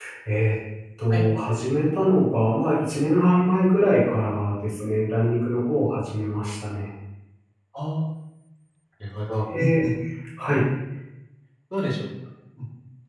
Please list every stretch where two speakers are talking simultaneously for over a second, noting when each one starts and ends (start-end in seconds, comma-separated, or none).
none